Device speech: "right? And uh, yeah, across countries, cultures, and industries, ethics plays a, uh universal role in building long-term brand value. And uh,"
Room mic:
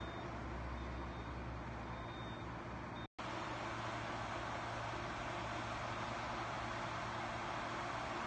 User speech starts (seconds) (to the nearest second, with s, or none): none